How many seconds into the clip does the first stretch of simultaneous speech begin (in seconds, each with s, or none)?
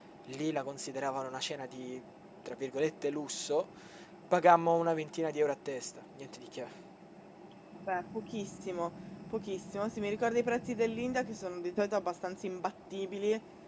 none